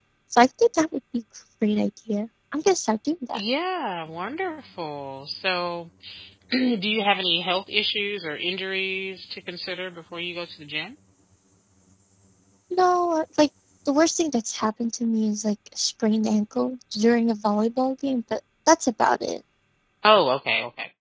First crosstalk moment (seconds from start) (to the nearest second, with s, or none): none